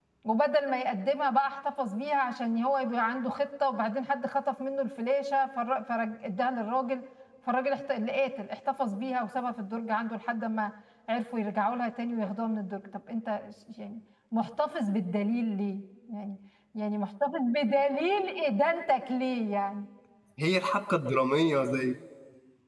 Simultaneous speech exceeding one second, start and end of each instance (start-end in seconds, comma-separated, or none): none